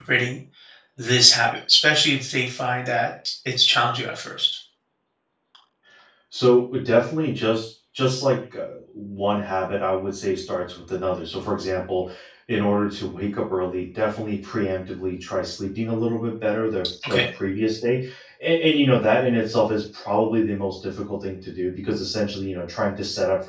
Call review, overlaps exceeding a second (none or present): none